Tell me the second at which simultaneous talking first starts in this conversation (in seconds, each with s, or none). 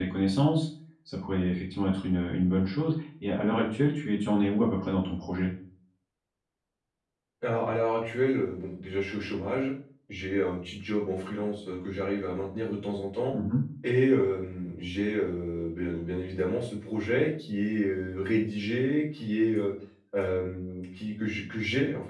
none